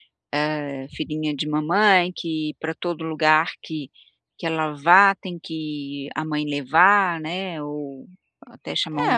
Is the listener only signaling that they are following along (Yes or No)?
No